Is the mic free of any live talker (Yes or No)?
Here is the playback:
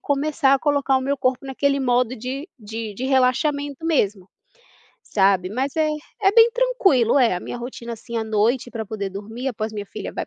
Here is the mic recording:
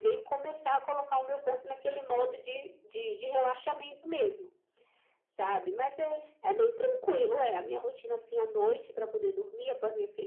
Yes